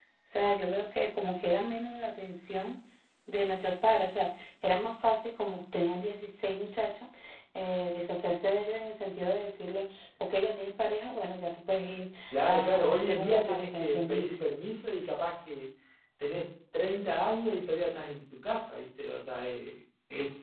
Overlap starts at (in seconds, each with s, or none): 12.3 s